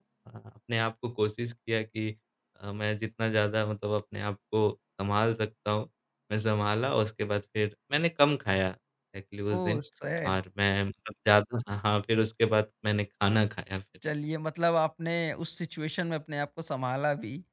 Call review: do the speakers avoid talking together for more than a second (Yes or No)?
Yes